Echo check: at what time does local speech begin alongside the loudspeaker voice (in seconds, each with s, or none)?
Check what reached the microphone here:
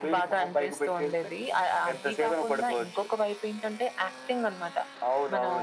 none